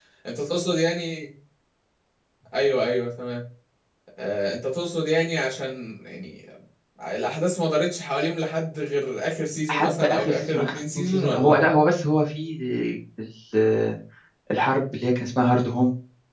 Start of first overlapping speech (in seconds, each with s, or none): 9.7 s